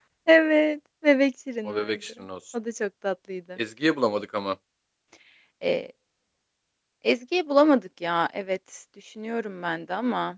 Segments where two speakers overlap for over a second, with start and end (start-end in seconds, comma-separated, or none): none